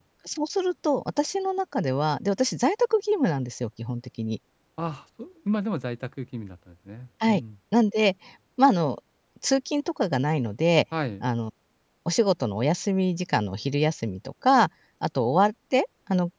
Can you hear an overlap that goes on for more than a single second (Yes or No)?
No